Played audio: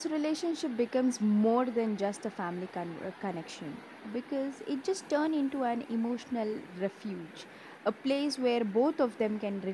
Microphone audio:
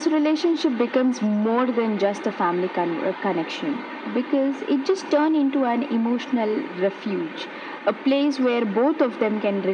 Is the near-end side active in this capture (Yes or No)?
No